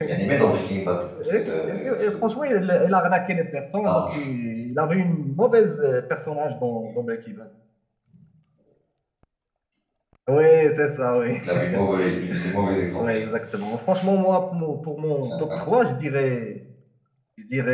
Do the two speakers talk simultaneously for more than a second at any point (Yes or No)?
No